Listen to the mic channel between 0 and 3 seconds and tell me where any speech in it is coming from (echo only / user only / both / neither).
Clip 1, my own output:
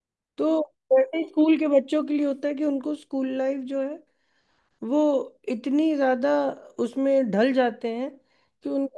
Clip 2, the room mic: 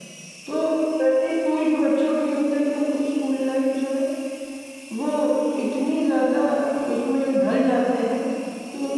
echo only